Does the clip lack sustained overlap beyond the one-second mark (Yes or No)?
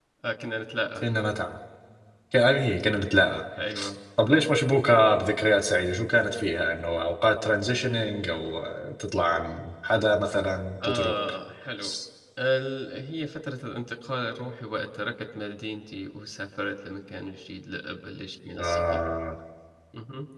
Yes